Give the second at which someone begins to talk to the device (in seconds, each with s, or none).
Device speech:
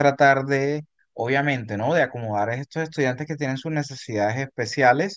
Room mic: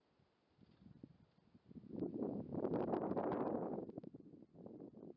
none